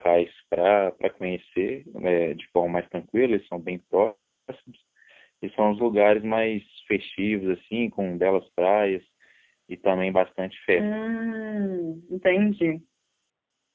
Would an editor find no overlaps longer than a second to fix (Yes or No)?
Yes